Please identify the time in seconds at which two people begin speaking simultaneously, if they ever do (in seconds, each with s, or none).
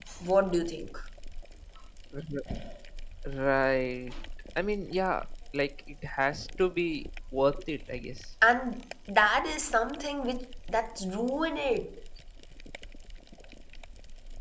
none